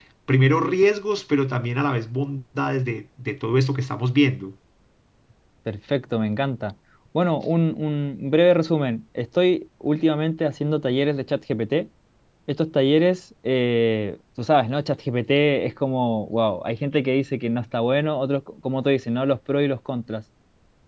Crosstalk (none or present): none